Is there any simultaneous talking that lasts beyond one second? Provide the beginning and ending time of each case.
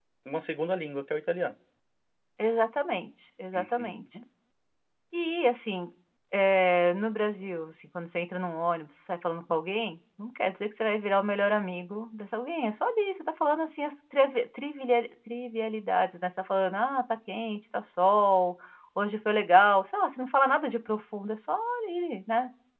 none

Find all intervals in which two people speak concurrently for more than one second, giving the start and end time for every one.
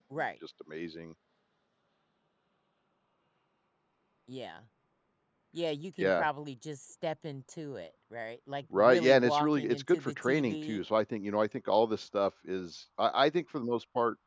8.8-10.8

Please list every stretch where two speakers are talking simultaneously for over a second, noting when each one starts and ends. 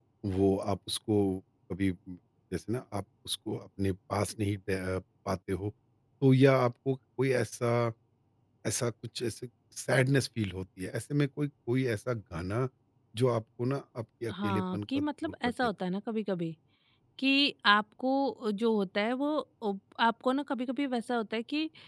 14.3-15.5

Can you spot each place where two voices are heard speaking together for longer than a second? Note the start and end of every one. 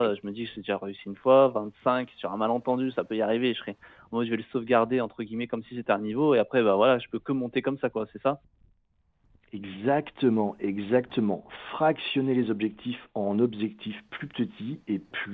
none

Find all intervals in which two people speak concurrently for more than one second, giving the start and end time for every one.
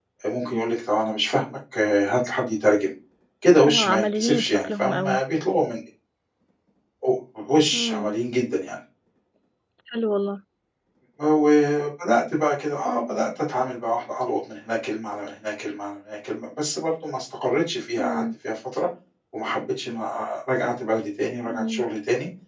3.7-5.2

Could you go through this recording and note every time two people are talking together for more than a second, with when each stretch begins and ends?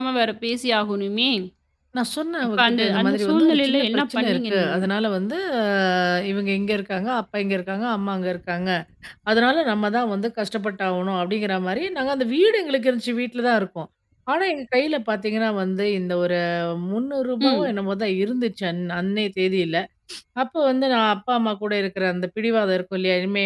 2.6-4.8

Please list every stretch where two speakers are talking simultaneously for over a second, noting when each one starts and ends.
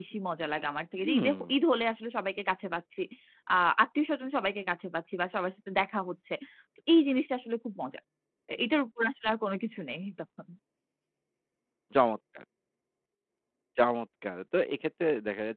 none

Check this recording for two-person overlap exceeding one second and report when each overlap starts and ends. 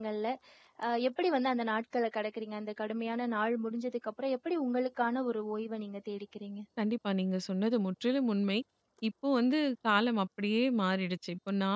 none

